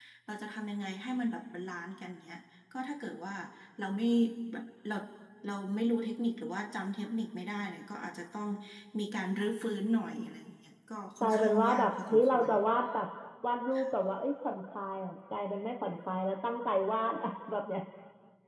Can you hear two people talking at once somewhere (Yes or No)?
Yes